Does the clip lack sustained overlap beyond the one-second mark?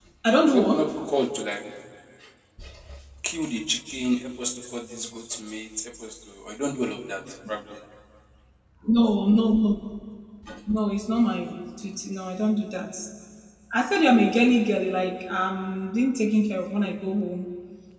Yes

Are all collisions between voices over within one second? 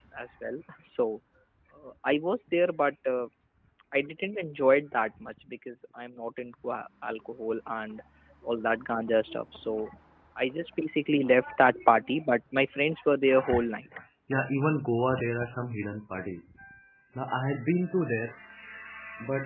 Yes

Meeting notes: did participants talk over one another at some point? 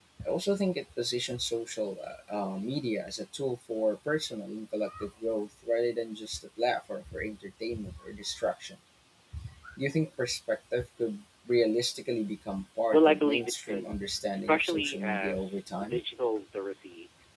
Yes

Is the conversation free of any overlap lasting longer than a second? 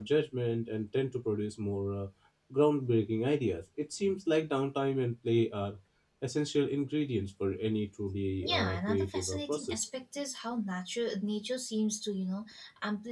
No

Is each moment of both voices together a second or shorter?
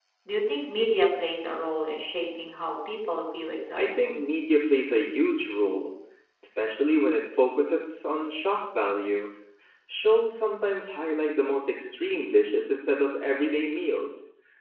Yes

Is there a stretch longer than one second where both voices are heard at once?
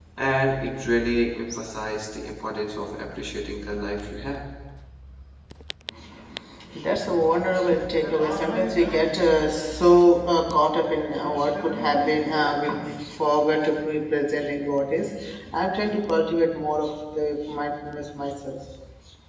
No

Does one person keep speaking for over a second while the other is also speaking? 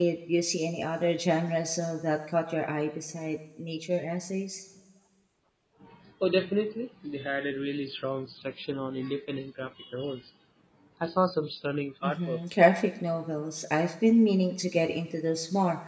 No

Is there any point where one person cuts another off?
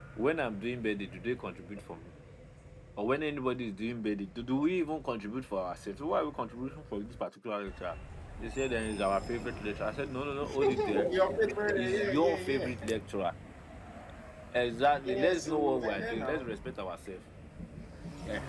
Yes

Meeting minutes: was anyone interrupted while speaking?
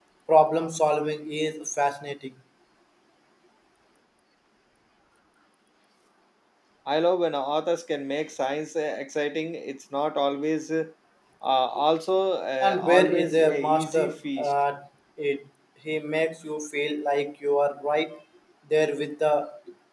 Yes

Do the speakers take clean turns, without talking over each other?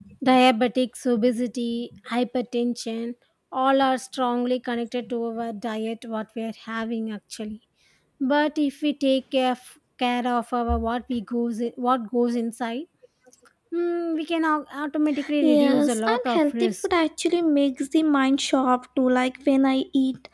No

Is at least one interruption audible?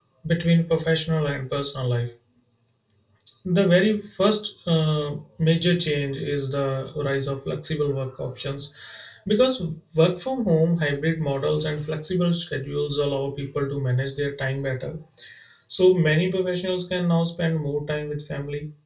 No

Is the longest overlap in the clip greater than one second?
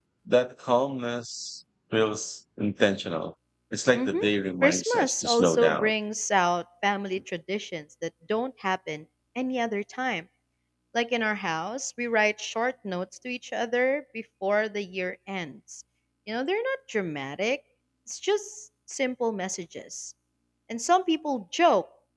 Yes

